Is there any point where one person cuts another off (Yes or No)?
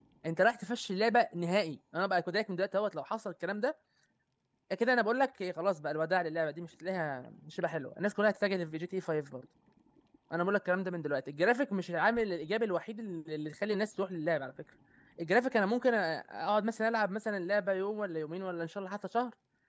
No